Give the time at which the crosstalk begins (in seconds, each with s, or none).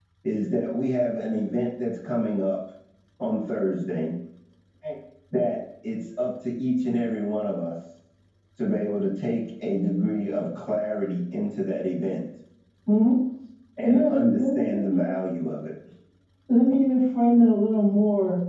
13.8 s